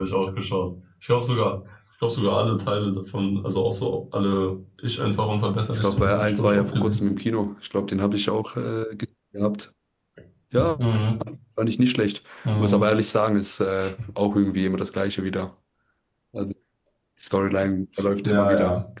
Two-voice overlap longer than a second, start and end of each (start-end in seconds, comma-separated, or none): 5.7-7.0